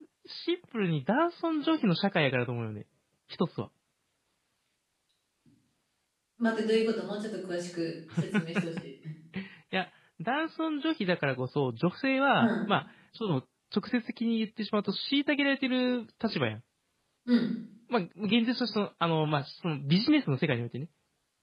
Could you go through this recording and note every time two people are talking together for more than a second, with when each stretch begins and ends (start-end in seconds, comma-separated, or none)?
none